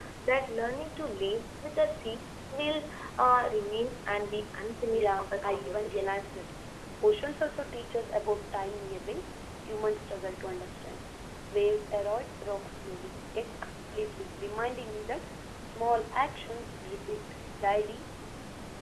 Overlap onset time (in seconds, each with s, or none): 4.9 s